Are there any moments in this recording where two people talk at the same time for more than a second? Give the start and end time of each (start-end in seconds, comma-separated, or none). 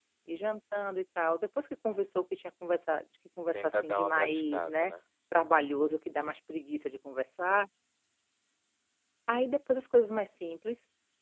3.5-4.9